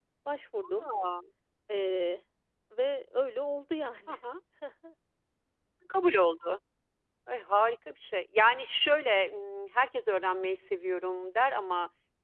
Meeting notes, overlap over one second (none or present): none